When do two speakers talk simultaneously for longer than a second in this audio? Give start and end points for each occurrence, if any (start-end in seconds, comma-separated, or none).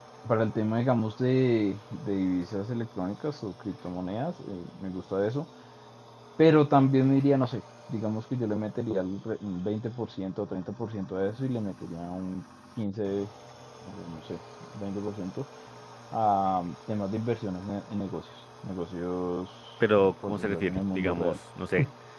20.0-21.4